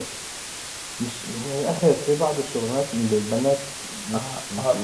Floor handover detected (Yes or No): Yes